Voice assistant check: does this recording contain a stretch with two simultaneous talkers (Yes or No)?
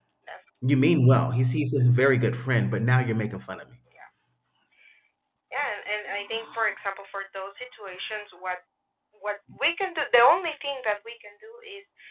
No